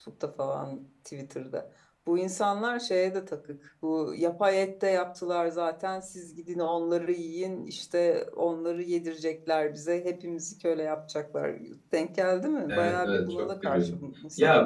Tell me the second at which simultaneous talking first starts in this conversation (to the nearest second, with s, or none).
13 s